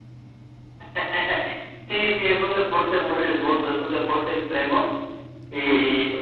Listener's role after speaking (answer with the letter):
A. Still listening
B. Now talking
A